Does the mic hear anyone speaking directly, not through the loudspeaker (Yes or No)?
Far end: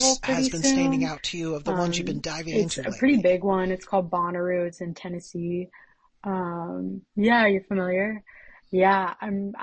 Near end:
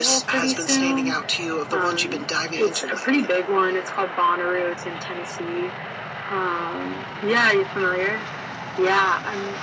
No